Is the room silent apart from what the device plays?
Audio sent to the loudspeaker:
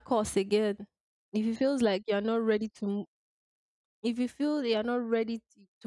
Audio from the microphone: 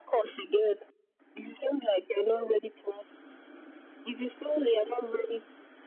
Yes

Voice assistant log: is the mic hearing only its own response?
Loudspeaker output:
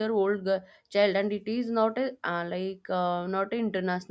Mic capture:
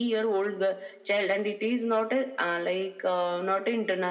Yes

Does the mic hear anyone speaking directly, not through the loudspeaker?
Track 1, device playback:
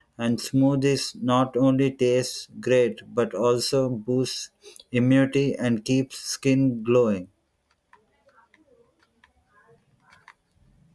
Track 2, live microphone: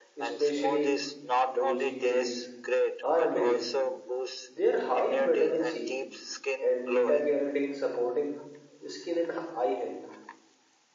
Yes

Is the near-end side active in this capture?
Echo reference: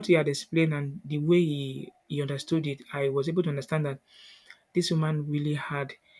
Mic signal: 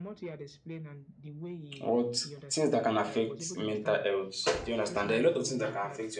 Yes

